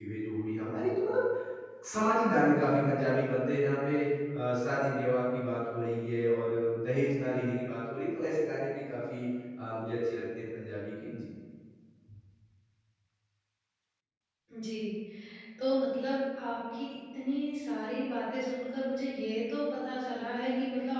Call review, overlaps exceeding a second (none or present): none